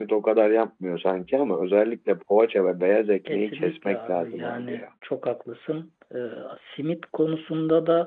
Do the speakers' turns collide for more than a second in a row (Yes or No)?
Yes